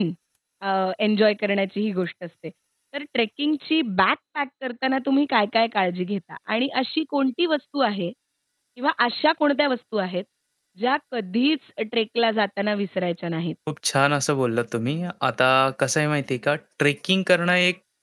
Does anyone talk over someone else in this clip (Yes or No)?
No